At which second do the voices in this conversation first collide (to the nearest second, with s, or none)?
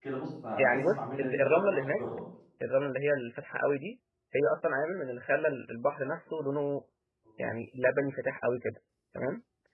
1 s